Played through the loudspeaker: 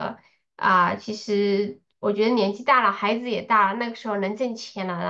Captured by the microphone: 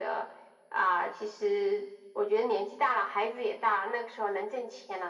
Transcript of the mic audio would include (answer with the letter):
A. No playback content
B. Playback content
B